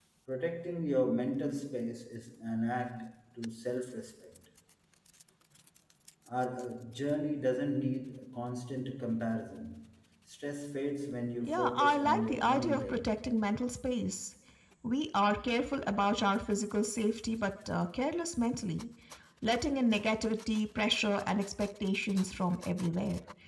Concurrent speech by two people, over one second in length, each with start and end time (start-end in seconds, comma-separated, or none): 11.4-13.1